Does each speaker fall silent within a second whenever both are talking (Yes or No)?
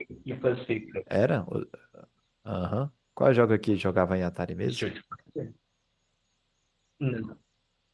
Yes